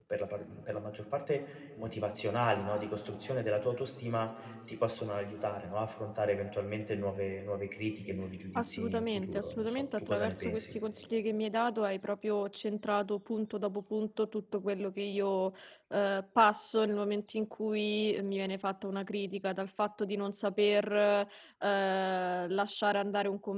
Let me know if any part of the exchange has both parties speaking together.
Yes, from 8.6 s

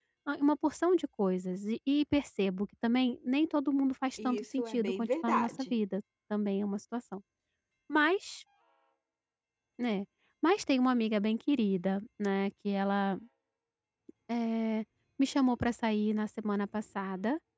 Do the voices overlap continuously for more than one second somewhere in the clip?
Yes, from 4.2 s

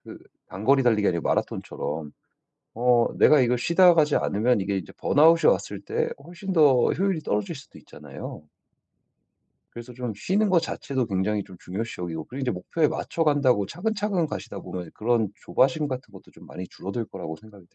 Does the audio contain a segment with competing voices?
No

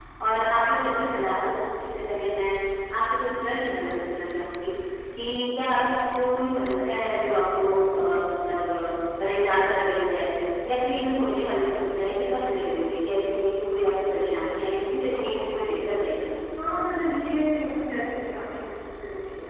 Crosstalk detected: No

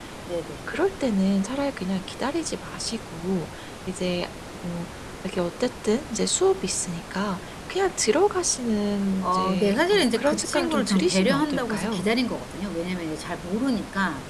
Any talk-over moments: Yes, from 9.2 s

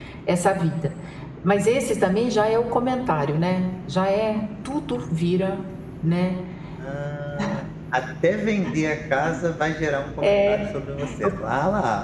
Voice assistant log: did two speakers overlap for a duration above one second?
No

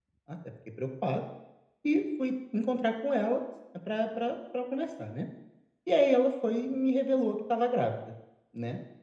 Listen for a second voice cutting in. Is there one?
No

